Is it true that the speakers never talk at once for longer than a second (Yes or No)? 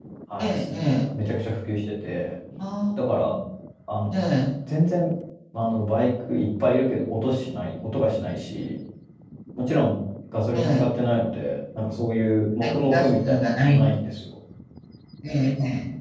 No